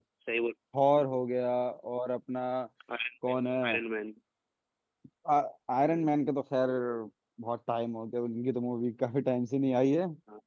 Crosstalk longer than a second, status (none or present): none